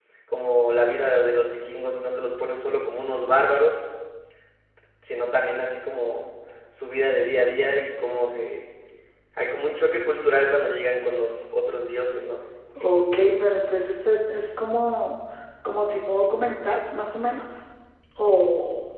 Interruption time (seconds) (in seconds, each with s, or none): none